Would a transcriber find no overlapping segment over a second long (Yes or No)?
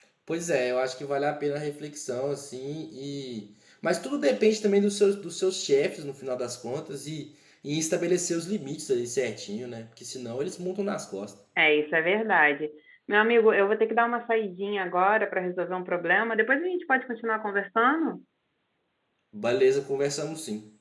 Yes